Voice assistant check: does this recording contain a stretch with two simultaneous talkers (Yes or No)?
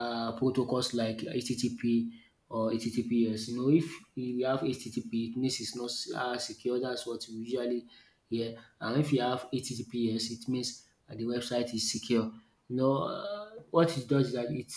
No